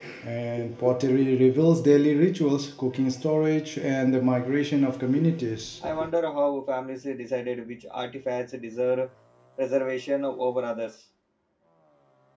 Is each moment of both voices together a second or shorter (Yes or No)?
Yes